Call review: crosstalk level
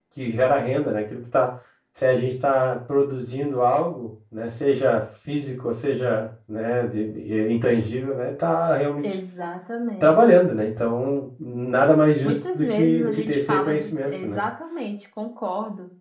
present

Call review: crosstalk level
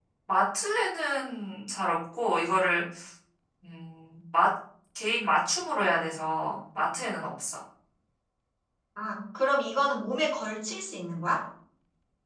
none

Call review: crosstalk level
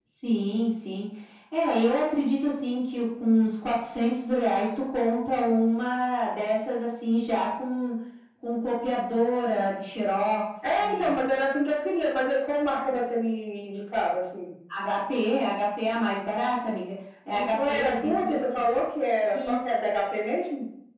present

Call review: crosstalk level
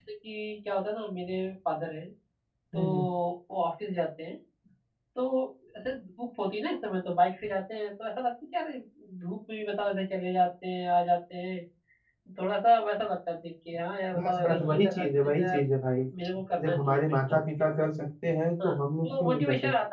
present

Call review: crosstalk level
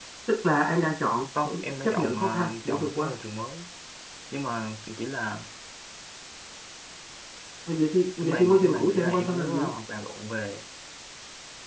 present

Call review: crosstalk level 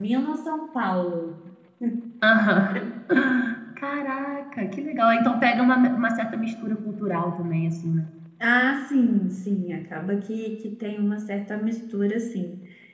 none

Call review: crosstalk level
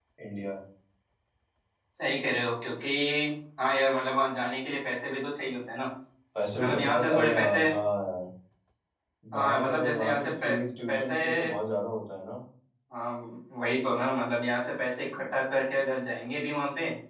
present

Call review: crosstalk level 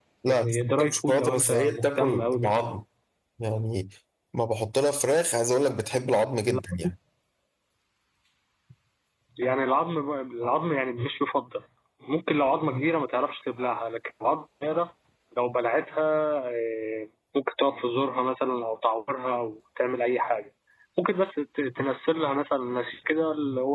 present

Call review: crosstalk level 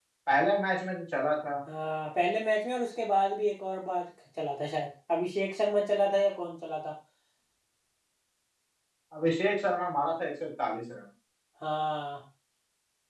none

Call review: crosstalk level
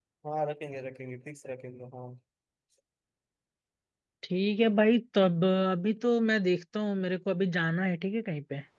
none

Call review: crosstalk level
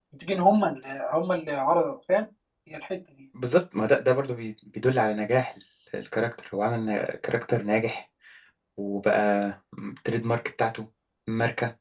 none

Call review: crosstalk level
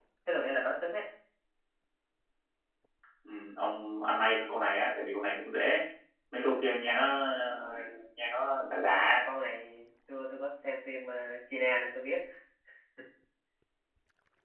none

